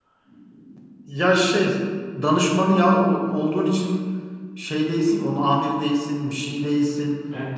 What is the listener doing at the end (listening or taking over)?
taking over